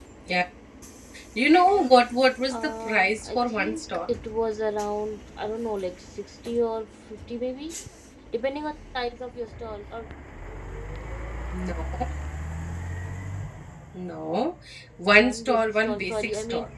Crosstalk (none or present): present